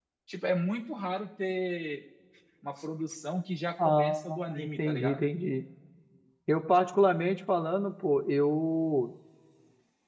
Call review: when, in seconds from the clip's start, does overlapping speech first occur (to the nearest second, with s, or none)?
4 s